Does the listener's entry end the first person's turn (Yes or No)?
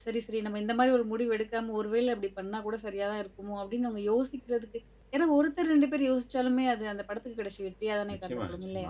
Yes